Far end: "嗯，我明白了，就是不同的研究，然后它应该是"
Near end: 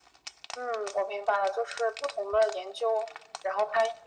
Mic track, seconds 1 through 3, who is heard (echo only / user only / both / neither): echo only